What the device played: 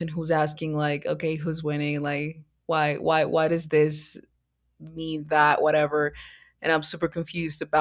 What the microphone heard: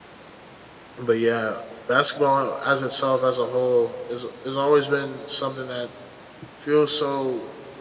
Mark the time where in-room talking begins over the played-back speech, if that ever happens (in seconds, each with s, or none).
0.9 s